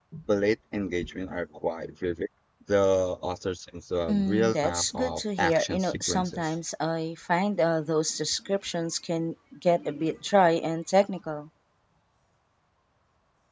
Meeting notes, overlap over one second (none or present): present